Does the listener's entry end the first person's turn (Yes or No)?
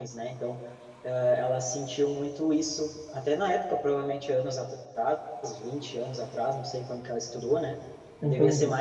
No